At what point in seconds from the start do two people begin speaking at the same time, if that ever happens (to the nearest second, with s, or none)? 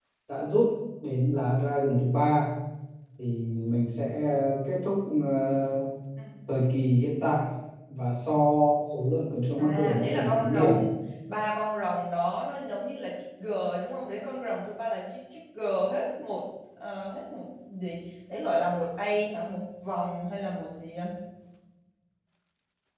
10 s